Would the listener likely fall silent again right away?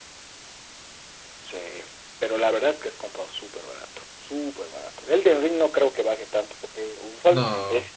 Yes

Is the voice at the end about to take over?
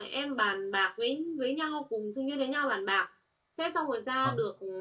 No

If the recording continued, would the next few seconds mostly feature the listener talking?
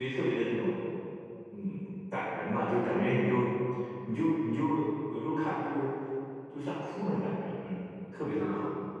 Yes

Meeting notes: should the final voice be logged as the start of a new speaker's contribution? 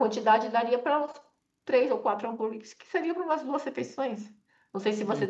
No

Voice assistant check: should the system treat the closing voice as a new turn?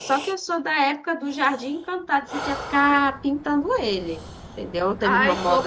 Yes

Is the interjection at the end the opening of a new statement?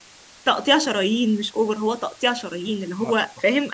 No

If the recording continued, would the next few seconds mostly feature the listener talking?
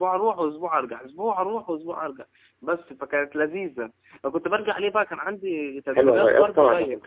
Yes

